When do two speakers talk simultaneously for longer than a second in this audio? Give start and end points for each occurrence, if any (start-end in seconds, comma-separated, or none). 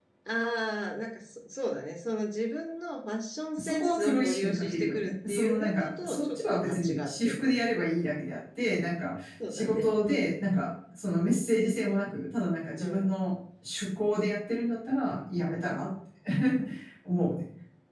3.6-7.8